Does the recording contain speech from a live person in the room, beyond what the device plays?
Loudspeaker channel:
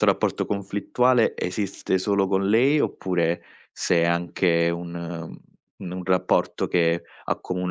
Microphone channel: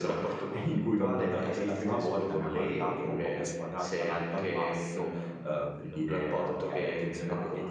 Yes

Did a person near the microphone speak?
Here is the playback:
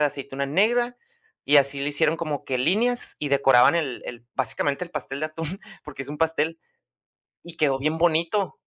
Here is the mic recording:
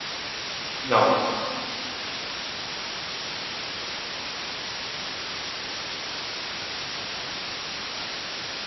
Yes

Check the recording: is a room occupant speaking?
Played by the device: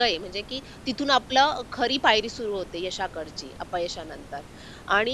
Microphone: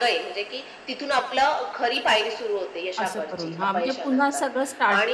Yes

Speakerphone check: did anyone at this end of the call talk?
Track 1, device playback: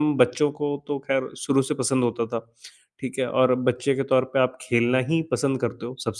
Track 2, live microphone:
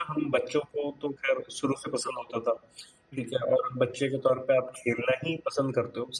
Yes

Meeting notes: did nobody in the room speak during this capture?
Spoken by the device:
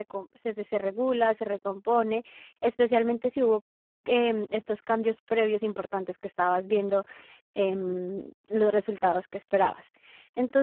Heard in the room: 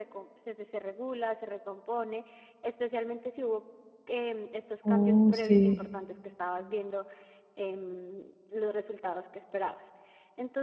No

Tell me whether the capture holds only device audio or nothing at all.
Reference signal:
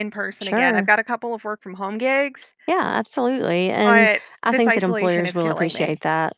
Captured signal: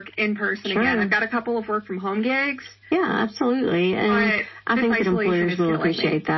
Yes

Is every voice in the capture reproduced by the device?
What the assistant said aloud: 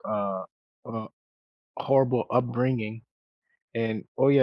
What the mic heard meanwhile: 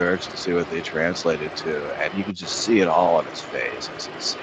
No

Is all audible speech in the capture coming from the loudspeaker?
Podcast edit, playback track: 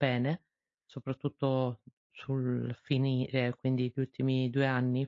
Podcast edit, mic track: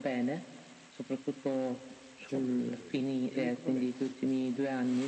No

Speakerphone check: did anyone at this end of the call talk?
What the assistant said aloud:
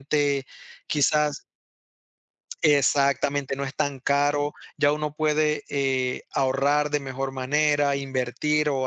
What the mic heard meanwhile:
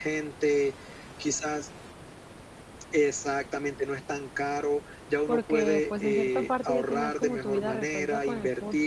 Yes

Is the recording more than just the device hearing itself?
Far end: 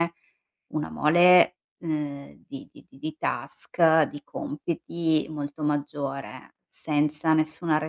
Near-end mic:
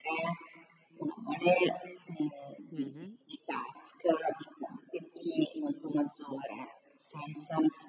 Yes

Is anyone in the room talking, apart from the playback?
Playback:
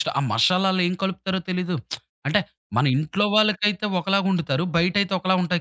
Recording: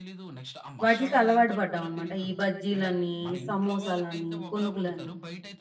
Yes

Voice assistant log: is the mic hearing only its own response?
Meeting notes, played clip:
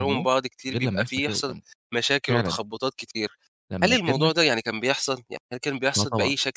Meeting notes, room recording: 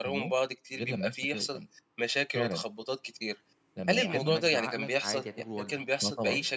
No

